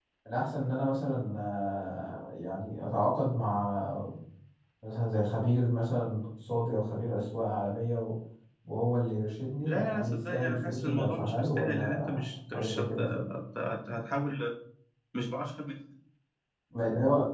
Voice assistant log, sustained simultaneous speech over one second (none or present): present